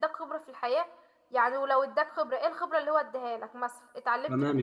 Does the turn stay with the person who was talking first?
No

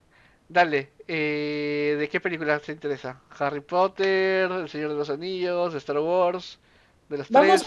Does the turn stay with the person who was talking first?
No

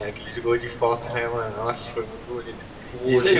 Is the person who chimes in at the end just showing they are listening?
Yes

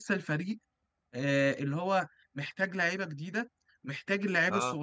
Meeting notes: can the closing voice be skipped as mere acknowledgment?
Yes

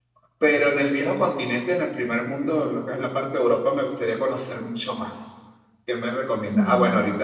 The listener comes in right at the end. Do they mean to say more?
No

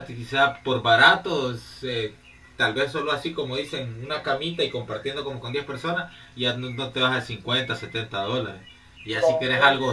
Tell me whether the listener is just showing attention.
Yes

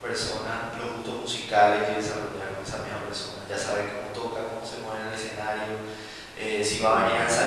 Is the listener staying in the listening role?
Yes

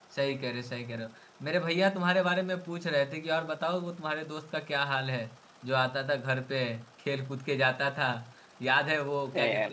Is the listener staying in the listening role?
Yes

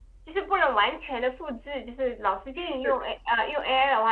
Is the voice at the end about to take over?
No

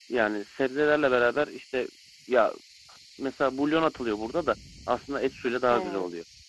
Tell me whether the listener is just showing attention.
No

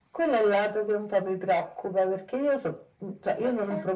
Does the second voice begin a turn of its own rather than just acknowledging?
No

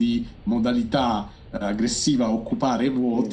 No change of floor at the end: Yes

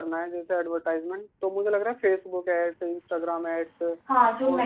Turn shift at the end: Yes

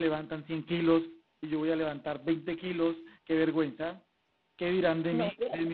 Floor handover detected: Yes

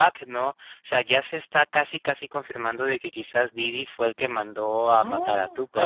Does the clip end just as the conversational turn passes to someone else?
Yes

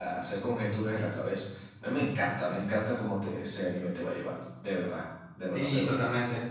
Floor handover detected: Yes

